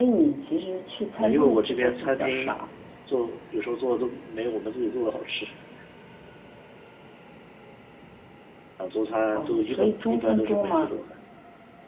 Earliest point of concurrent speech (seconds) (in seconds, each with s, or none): 1.2 s